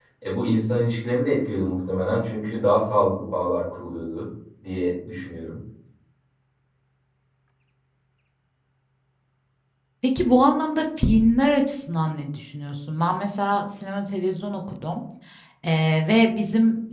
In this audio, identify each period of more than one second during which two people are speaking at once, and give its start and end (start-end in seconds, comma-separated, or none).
none